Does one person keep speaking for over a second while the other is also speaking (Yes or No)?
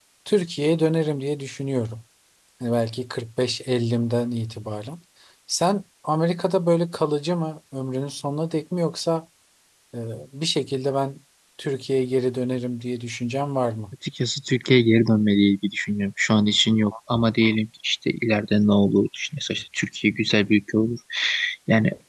No